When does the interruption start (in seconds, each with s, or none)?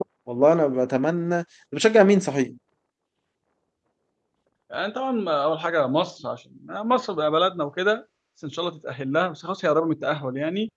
none